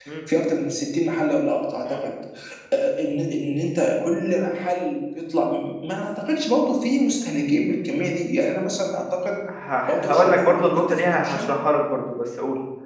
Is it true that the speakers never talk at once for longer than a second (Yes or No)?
No